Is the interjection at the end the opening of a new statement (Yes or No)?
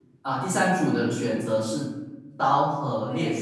No